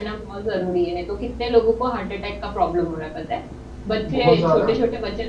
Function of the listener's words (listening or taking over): listening